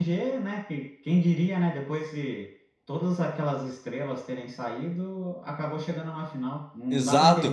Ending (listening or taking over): taking over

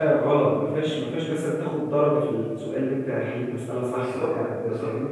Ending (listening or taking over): taking over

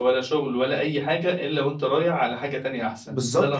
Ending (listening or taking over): taking over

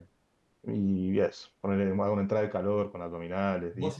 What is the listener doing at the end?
taking over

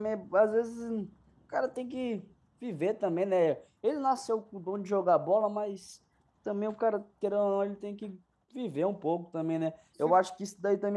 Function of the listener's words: listening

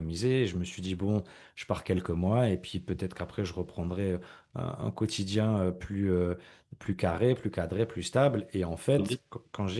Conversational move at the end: listening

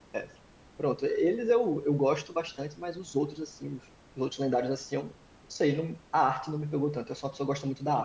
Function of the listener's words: taking over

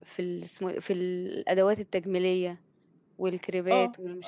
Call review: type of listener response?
taking over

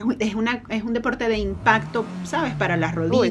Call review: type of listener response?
listening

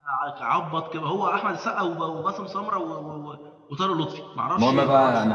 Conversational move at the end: taking over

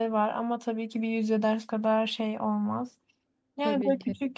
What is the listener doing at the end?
listening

